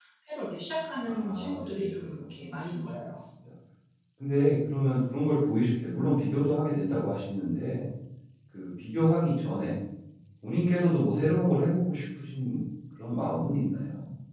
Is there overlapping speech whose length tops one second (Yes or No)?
Yes